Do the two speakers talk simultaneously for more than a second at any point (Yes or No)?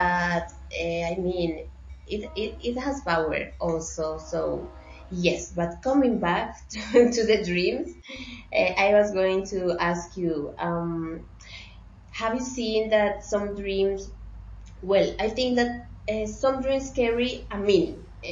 No